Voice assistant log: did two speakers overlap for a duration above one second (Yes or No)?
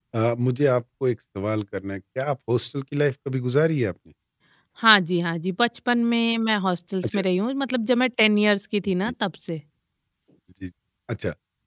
No